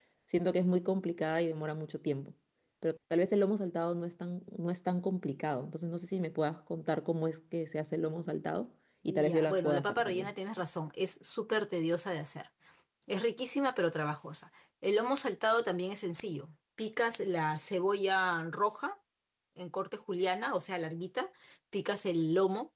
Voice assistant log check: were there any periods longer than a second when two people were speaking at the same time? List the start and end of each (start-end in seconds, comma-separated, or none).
9.1-10.3